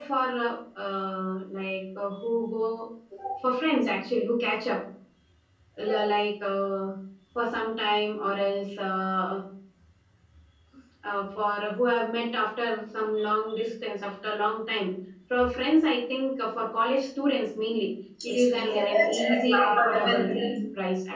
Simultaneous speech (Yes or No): Yes